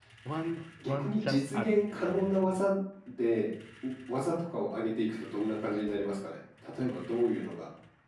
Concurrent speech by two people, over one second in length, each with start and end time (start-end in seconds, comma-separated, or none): 0.9-2.6